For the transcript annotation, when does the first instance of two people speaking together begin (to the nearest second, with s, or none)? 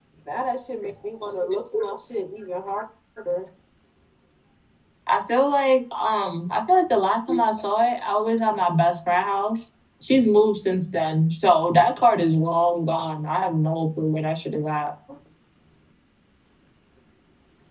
none